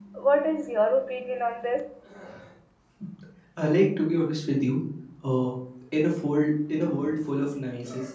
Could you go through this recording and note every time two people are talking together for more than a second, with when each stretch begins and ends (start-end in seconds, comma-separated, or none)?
none